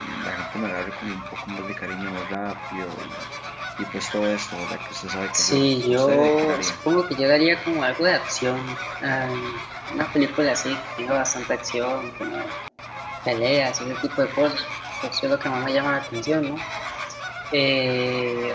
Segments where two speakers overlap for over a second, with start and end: 5.3-6.7

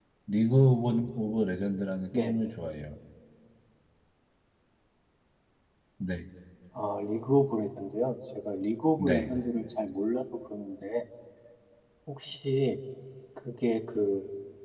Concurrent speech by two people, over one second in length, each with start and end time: none

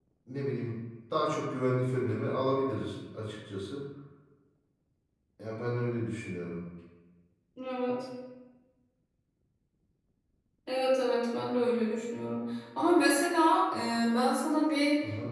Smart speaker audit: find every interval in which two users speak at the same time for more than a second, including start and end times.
none

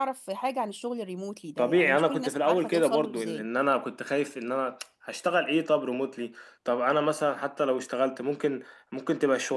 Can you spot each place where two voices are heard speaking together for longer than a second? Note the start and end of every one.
1.6-3.5

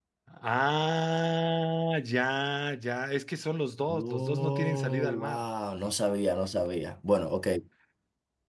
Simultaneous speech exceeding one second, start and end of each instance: 3.9-5.4

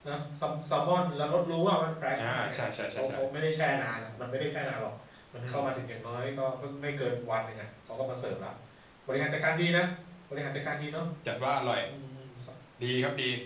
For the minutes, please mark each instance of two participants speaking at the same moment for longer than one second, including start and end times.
none

